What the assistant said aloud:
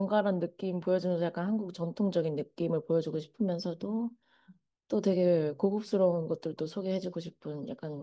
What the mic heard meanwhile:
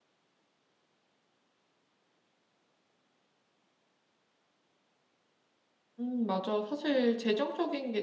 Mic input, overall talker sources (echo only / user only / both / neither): user only